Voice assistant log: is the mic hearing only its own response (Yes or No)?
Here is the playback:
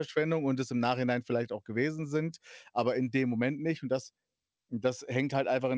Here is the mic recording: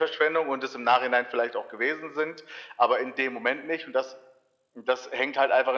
Yes